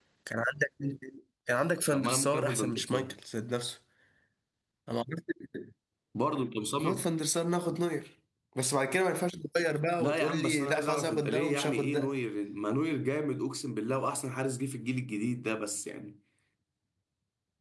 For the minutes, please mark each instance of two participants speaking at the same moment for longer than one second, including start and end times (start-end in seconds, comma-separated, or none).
1.9-3.1, 10.0-12.1